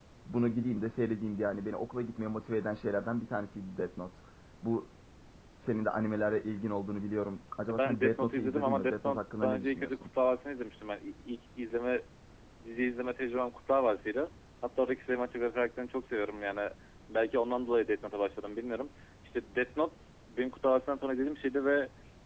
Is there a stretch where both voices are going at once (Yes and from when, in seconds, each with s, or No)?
Yes, from 7.7 s